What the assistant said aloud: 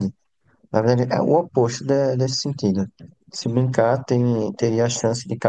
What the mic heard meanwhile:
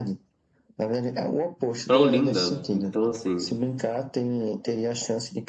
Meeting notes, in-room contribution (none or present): present